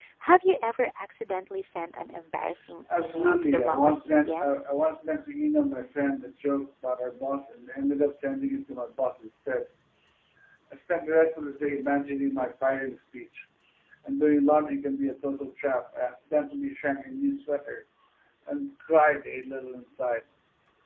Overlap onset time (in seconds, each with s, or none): 2.9 s